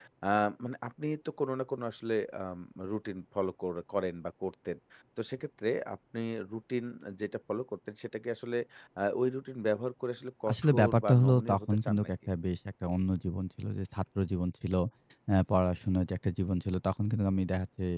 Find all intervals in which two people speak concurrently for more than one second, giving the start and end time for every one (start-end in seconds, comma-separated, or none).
10.5-12.1